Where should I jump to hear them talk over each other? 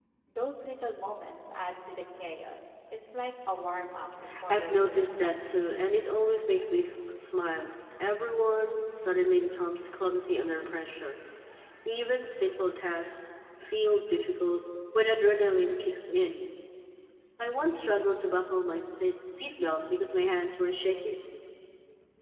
4.5 s

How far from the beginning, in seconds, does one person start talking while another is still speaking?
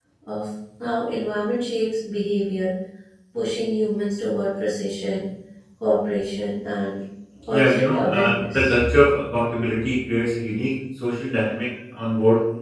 7.5 s

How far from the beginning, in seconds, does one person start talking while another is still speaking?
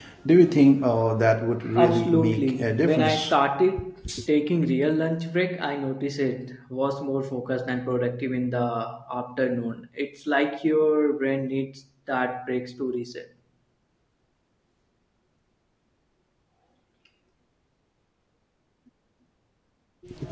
1.8 s

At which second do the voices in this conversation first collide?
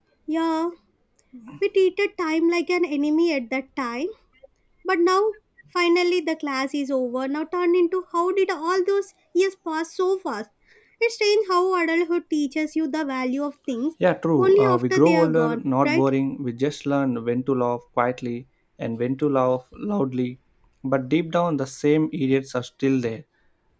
14.4 s

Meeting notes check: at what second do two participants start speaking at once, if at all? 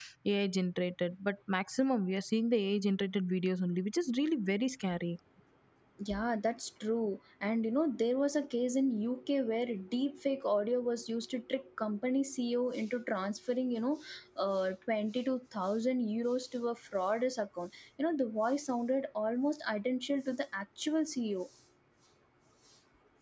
none

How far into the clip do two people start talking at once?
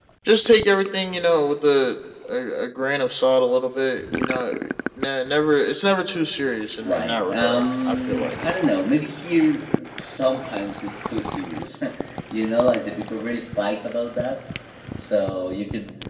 6.8 s

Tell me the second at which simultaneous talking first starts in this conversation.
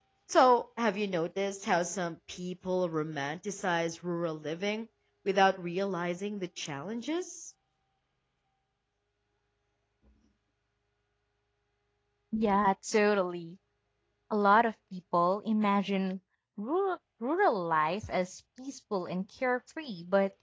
none

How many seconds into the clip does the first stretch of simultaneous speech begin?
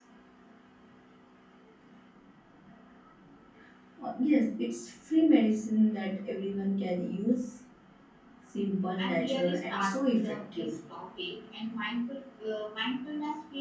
9.0 s

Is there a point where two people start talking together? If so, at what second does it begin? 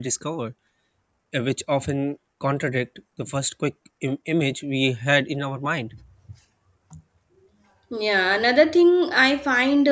none

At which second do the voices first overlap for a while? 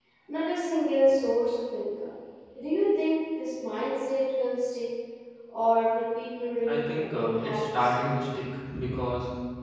6.7 s

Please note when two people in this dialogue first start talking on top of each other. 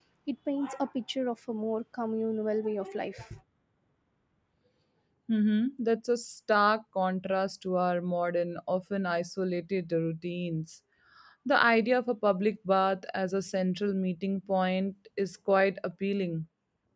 none

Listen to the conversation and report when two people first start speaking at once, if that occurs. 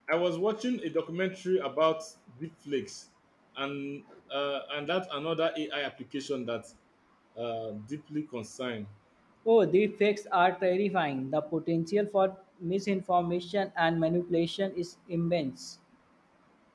none

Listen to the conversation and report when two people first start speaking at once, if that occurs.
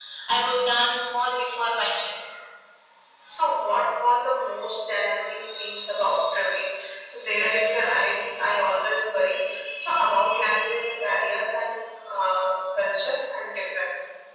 none

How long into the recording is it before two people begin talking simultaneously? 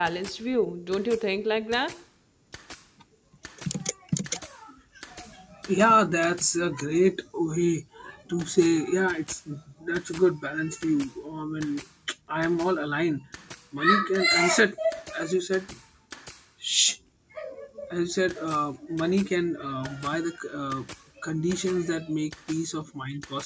none

